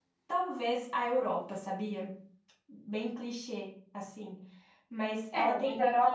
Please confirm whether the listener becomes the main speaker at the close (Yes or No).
Yes